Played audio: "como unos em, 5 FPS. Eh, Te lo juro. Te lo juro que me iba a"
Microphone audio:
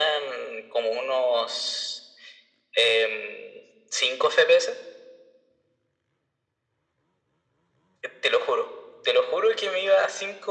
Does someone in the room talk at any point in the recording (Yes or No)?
No